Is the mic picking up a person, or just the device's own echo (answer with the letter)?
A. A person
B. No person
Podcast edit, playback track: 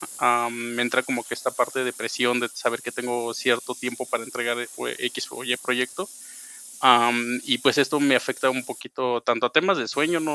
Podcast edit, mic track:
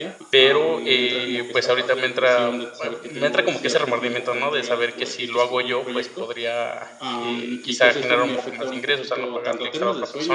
A